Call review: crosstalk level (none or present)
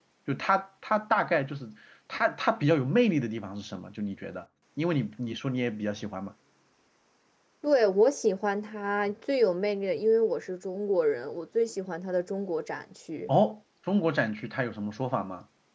none